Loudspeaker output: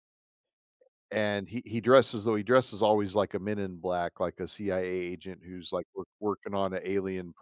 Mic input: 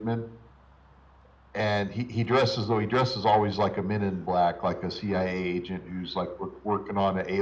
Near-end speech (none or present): none